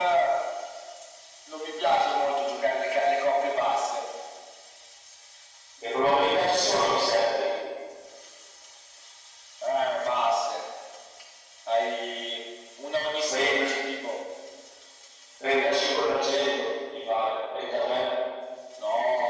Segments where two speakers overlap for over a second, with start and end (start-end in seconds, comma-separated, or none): none